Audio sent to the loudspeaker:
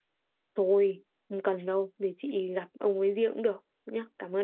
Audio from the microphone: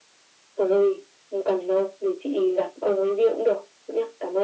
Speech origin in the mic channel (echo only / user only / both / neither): echo only